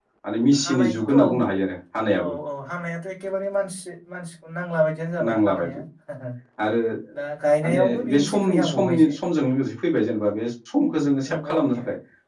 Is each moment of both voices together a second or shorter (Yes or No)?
No